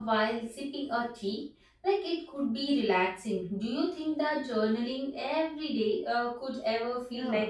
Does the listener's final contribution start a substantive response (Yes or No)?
Yes